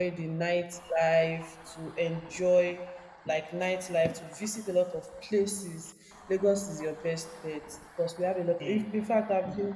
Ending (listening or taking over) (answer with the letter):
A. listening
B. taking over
A